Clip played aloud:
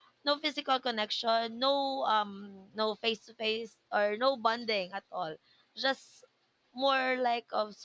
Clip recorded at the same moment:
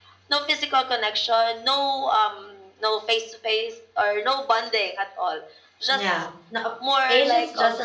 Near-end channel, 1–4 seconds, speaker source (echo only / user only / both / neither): echo only